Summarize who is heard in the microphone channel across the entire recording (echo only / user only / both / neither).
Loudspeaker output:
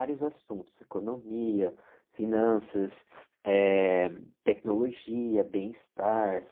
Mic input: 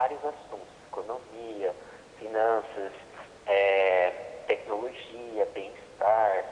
echo only